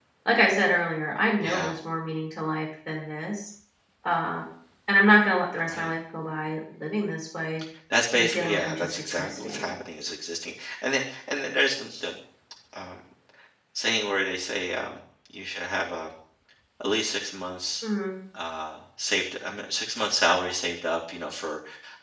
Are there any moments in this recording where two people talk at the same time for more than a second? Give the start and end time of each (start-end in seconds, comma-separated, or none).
8.1-9.7